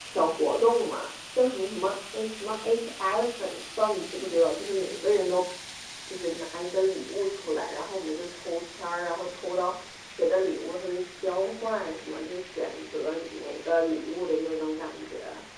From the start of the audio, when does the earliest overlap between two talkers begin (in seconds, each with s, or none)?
none